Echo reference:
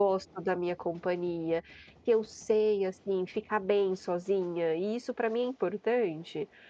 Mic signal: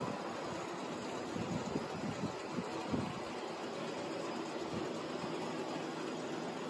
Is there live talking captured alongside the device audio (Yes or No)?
No